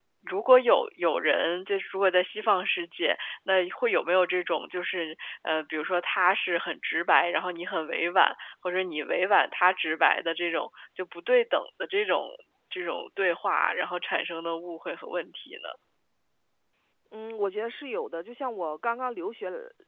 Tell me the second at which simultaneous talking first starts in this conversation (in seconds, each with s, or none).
none